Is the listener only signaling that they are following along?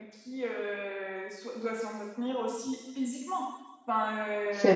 Yes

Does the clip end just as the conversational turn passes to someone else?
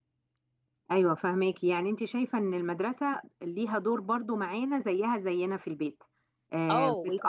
Yes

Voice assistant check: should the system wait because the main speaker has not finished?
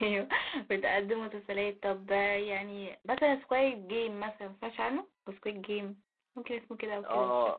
No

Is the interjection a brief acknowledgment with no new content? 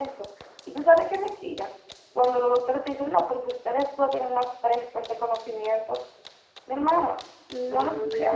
Yes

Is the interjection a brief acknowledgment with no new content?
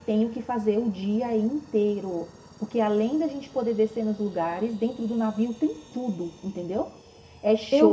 Yes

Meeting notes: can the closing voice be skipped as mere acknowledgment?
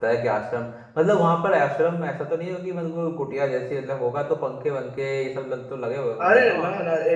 No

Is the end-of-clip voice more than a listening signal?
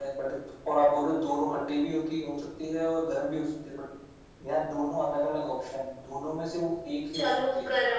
Yes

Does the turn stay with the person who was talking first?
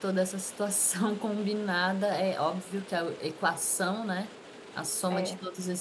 Yes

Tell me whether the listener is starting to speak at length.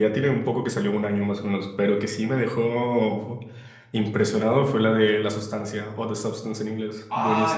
Yes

